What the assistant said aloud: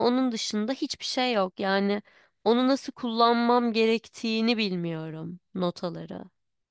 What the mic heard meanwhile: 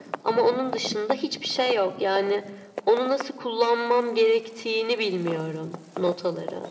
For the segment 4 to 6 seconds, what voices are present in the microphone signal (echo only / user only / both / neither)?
echo only